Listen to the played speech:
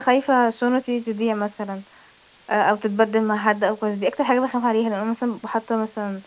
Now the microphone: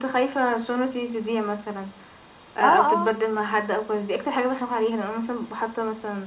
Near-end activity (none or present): present